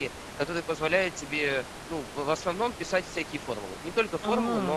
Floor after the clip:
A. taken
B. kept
B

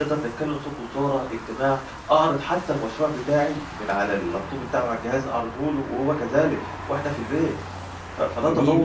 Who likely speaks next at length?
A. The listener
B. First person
A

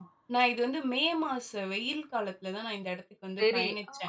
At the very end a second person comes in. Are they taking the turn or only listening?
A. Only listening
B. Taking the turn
B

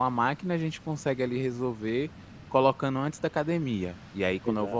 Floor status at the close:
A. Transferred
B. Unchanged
B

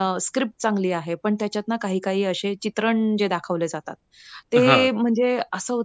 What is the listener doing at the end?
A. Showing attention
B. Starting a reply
A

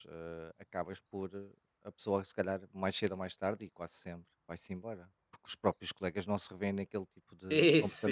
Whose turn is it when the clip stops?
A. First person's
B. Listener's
B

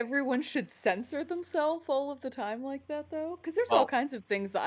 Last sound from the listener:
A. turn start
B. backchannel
B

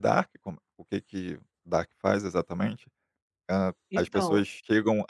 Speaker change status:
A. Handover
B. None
B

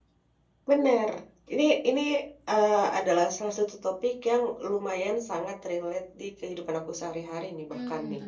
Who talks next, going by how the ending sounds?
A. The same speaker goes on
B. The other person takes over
B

